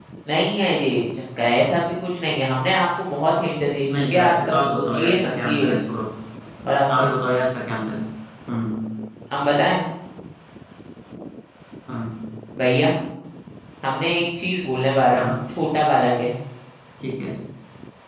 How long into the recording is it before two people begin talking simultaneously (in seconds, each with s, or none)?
3.9 s